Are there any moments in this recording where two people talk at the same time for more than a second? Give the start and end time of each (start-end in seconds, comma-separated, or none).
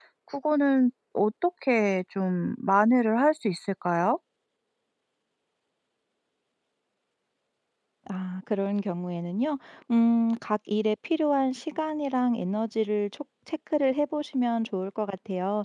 none